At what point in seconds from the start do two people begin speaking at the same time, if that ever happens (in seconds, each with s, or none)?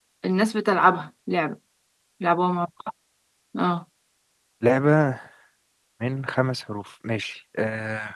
none